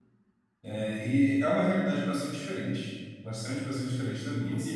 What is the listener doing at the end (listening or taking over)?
listening